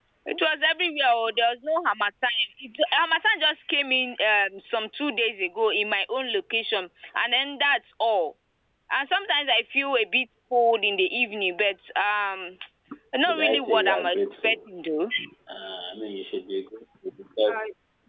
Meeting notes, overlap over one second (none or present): present